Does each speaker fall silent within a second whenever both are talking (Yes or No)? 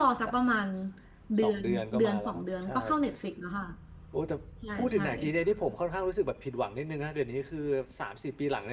No